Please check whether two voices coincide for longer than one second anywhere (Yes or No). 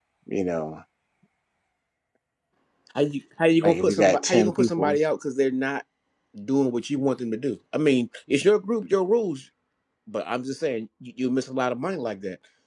Yes